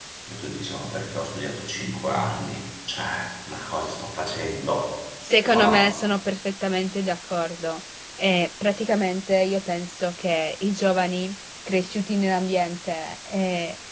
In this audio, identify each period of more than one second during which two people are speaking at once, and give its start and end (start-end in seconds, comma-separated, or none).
none